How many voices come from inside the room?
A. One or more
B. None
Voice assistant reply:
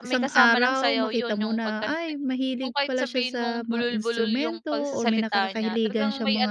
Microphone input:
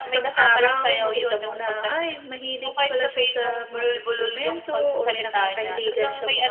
B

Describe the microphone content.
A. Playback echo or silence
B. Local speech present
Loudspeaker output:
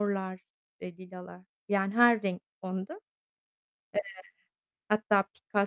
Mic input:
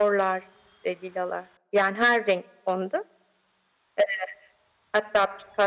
A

